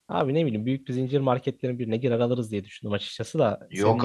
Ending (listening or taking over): taking over